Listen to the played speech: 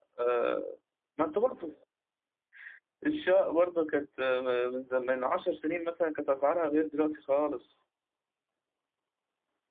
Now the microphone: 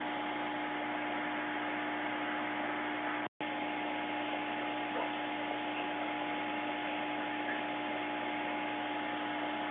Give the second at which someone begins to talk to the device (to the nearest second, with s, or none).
none